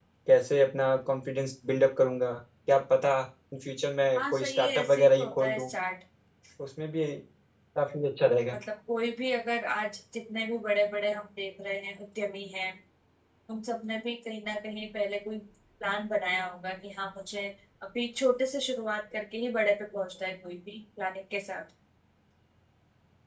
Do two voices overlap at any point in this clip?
Yes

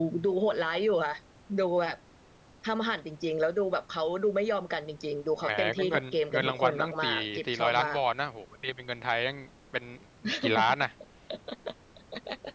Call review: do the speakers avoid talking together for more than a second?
No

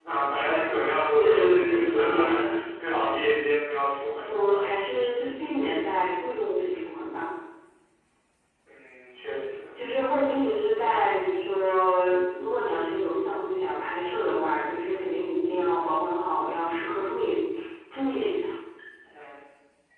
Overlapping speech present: Yes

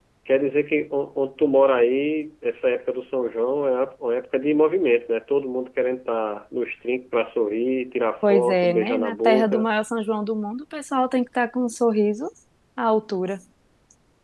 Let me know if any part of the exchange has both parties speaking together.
Yes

